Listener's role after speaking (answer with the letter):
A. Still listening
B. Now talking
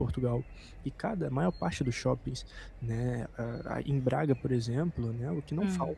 A